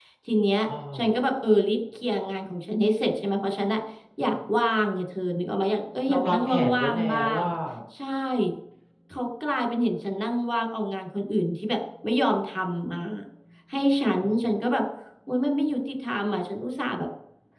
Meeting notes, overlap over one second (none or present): present